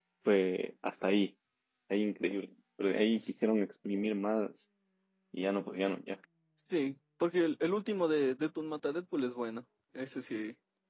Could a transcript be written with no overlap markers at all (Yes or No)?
Yes